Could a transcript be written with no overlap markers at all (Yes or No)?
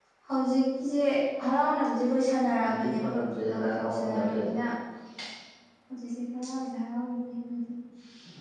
No